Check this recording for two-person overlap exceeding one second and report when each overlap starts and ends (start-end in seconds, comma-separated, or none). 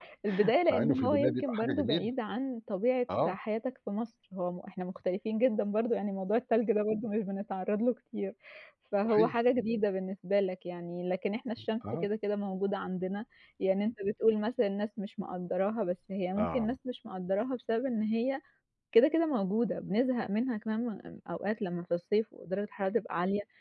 0.7-2.1